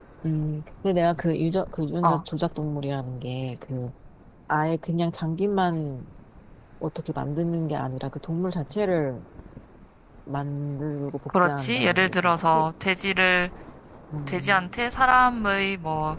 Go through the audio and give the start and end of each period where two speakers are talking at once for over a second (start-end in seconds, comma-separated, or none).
11.3-12.7